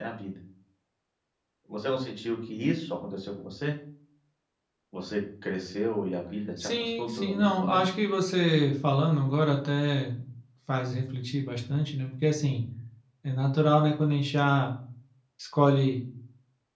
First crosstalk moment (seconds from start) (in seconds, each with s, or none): 6.6 s